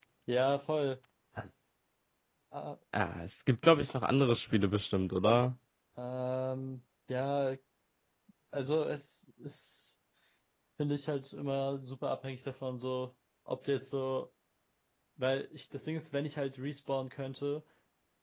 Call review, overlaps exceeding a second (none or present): none